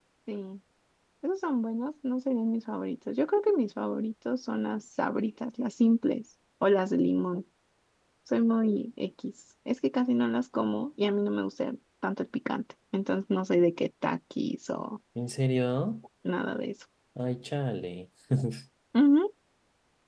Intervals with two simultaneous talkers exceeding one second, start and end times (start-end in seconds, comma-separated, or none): none